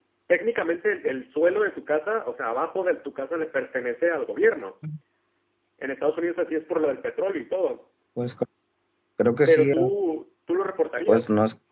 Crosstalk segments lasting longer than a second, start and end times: none

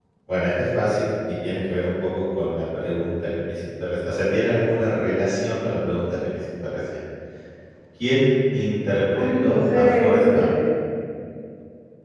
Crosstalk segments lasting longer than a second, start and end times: 9.1-10.5

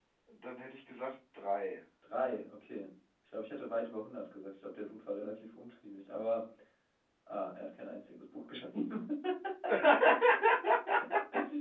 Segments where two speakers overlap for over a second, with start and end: none

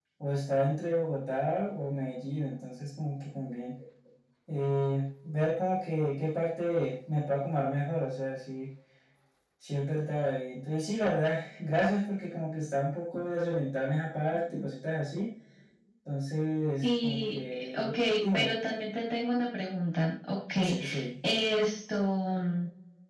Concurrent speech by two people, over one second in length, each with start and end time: 16.8-18.5

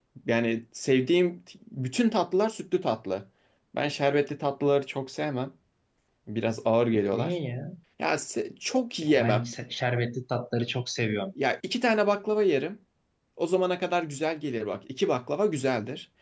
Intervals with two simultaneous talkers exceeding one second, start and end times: none

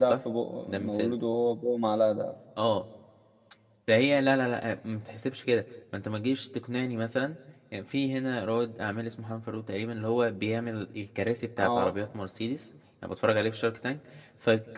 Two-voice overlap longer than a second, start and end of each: none

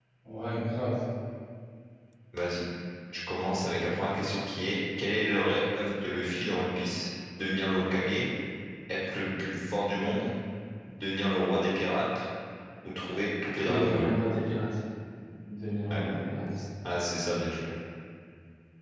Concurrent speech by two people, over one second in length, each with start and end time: none

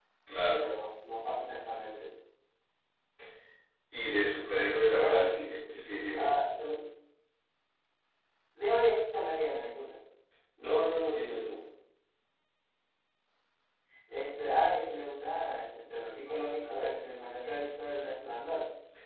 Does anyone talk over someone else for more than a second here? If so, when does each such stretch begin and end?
5.0-6.3

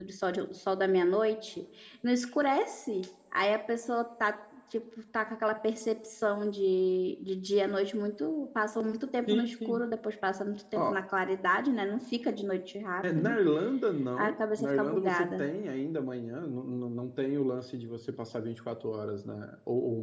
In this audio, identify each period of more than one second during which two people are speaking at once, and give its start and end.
14.2-15.5

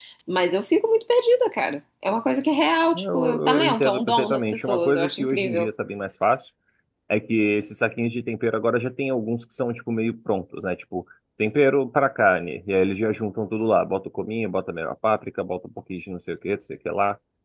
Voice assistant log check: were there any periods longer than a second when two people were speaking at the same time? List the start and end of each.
2.9-5.7

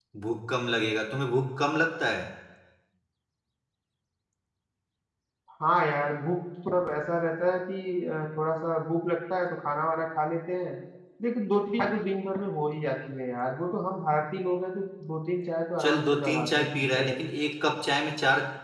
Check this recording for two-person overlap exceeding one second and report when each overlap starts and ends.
15.8-17.2

